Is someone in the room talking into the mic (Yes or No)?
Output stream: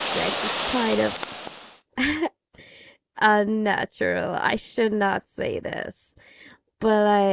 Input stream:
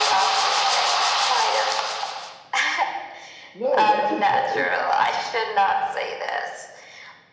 Yes